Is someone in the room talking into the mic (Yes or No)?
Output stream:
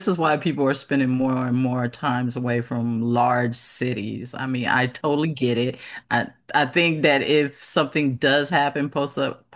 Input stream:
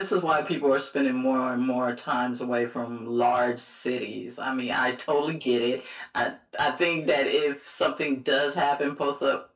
No